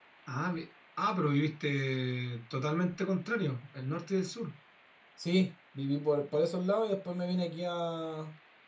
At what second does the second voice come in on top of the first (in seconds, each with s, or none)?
none